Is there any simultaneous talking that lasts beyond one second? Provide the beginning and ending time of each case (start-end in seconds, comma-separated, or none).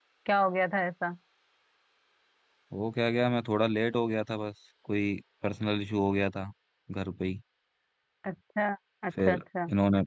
none